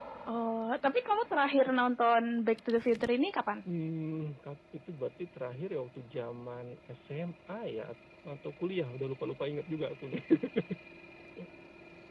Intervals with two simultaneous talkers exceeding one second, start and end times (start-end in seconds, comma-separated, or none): none